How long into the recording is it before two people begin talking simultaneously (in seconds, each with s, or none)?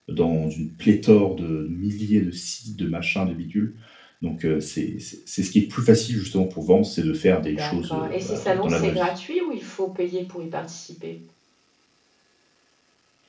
7.4 s